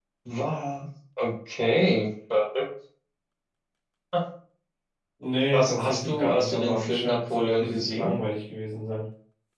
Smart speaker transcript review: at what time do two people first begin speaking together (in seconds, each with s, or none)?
5.5 s